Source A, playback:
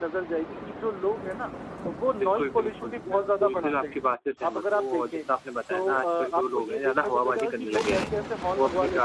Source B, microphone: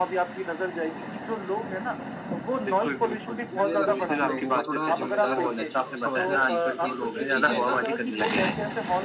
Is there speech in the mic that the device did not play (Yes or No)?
Yes